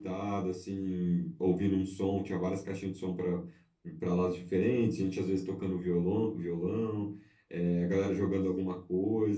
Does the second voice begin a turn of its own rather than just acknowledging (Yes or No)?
No